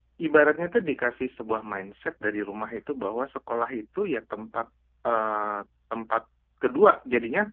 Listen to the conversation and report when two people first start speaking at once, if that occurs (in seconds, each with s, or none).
none